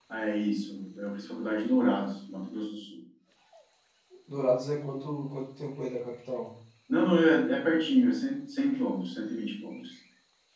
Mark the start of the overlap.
none

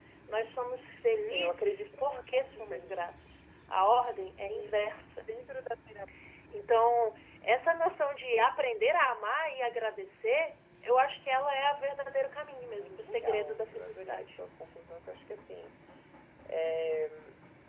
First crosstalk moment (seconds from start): 1.3 s

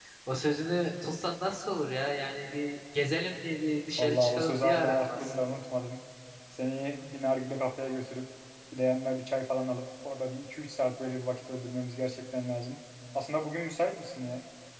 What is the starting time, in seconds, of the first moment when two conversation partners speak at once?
4.0 s

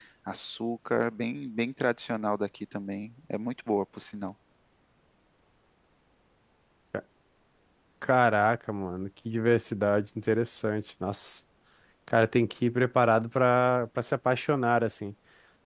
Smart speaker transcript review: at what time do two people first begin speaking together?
none

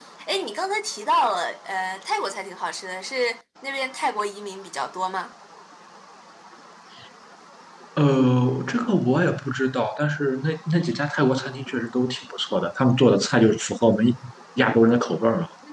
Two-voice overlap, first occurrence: none

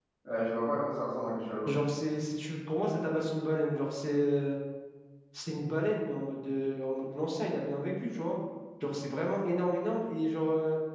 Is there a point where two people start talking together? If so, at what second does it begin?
none

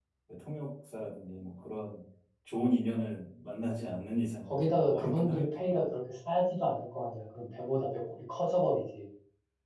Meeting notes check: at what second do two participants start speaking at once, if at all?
4.5 s

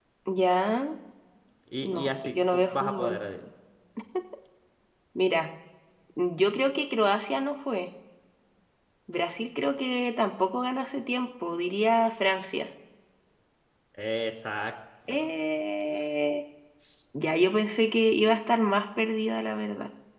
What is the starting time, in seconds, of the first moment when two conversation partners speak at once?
1.8 s

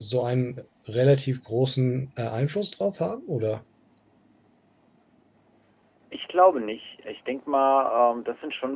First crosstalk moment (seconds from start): none

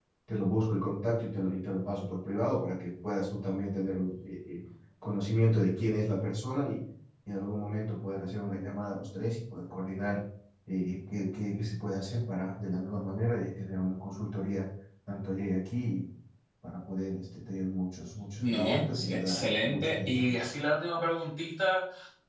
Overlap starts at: 18.4 s

